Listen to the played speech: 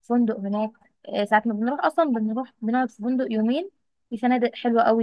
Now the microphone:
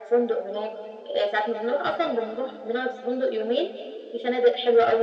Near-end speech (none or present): none